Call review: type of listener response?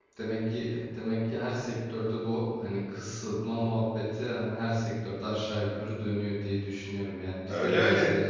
listening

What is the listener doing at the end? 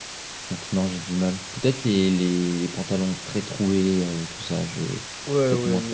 taking over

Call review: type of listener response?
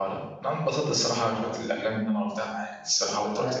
taking over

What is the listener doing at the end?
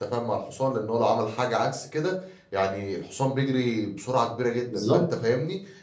listening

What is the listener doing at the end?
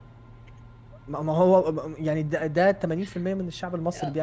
taking over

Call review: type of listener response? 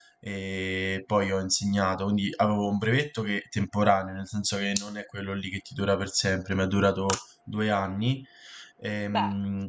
listening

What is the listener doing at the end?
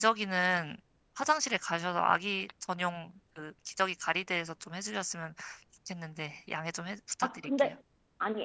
taking over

